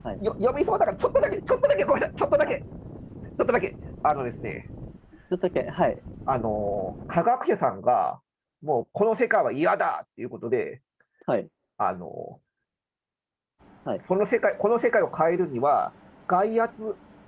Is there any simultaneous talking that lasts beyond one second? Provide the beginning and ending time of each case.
none

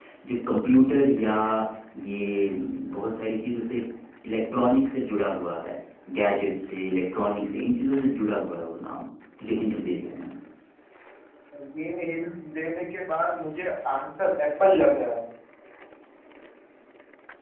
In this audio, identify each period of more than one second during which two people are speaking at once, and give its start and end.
none

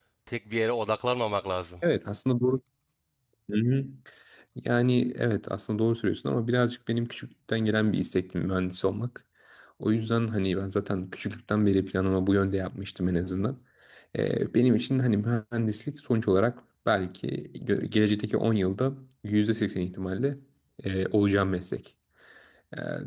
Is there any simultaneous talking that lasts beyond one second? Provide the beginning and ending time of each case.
none

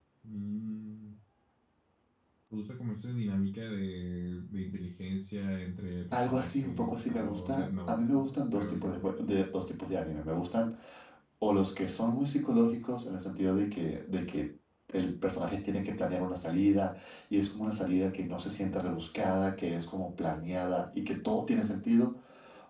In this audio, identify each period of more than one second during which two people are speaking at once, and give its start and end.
6.1-9.2

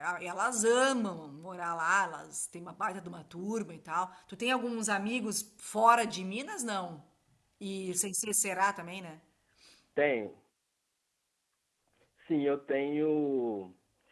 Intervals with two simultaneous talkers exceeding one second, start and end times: none

